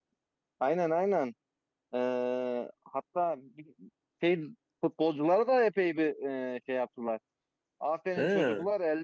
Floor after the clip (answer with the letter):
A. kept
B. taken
A